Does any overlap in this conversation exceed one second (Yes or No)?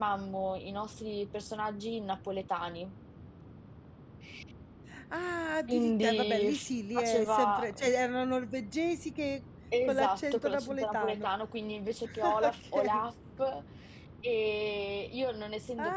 Yes